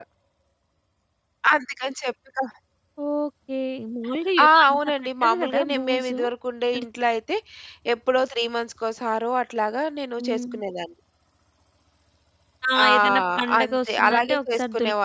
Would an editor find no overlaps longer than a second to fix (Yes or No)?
No